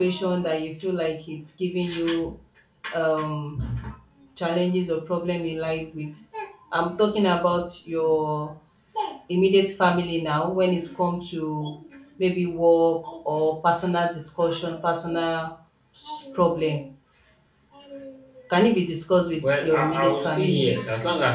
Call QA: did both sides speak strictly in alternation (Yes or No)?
No